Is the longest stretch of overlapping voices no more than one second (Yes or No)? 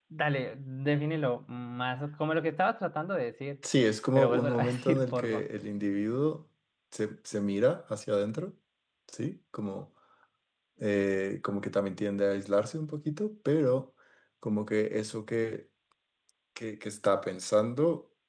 No